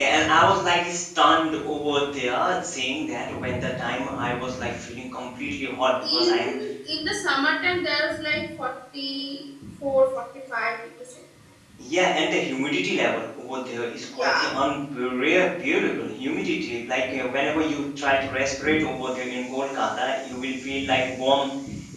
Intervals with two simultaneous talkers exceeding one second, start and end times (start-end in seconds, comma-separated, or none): none